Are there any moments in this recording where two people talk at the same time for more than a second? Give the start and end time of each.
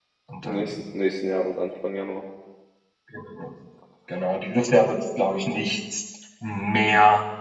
none

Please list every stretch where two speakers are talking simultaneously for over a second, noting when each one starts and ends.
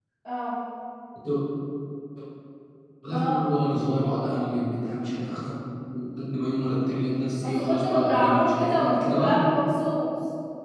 7.4-9.4

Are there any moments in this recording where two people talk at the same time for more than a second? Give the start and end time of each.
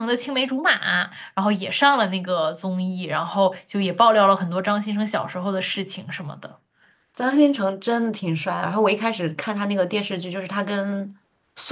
none

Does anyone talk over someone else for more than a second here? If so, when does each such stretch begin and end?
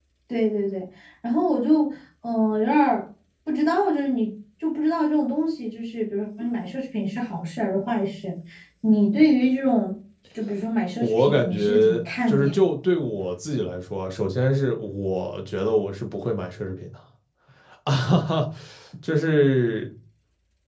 11.0-12.6

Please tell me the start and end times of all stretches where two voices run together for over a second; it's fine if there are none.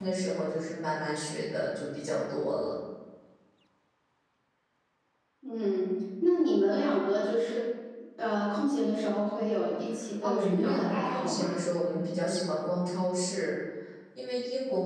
10.2-11.5

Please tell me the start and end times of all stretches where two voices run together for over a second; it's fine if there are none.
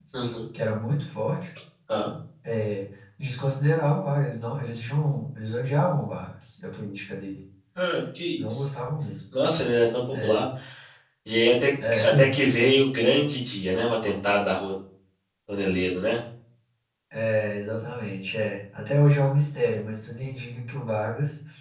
none

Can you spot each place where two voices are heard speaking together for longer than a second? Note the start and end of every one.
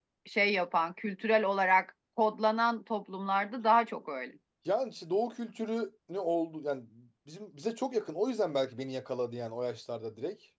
none

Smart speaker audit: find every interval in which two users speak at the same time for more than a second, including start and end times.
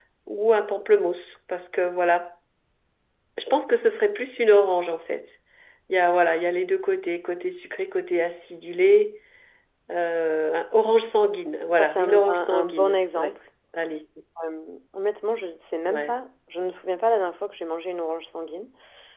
11.8-13.3

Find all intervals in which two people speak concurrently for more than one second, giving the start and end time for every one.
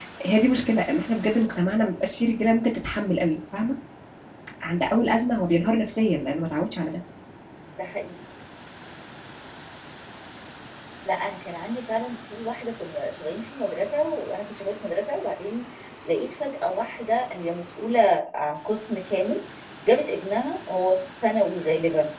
none

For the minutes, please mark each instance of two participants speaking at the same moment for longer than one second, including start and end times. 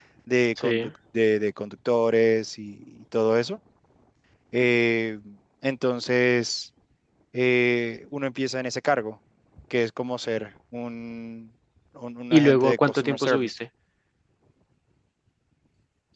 12.3-13.5

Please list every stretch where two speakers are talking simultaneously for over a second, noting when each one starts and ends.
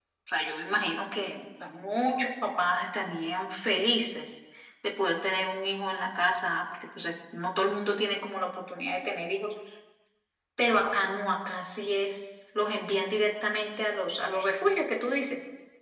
none

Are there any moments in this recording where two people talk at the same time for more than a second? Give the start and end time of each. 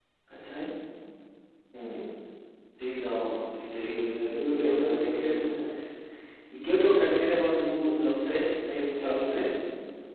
3.7-5.5

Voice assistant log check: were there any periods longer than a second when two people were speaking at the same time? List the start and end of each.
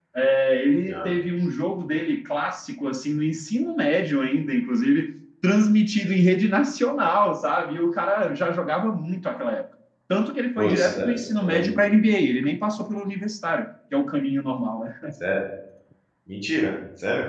10.6-12.0

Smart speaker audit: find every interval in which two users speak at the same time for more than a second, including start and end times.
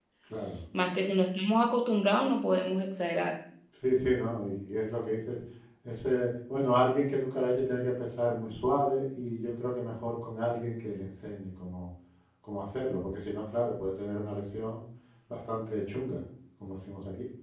none

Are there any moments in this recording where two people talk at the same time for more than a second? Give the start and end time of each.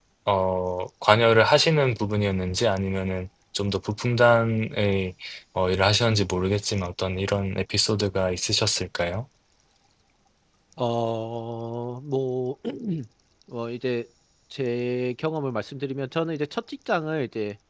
none

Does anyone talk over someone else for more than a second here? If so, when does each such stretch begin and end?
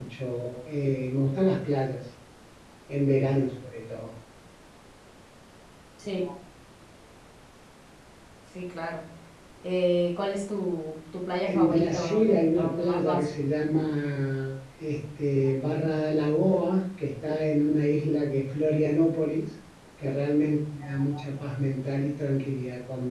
11.5-13.3

